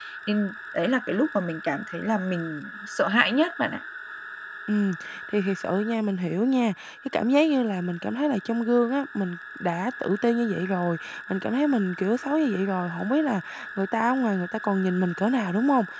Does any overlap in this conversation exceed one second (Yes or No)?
No